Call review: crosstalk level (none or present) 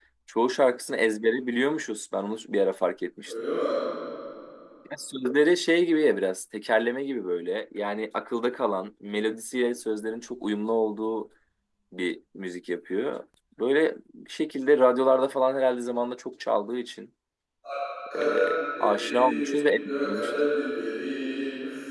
present